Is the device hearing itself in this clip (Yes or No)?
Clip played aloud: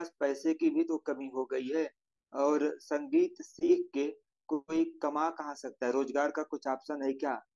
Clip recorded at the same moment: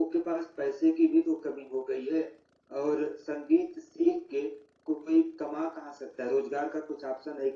Yes